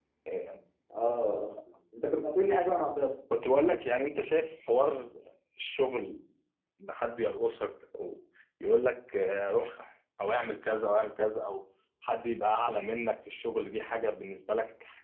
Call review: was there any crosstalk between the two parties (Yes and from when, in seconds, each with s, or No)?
No